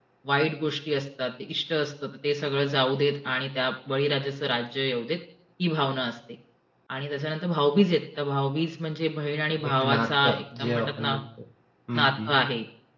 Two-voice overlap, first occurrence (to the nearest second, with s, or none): 10 s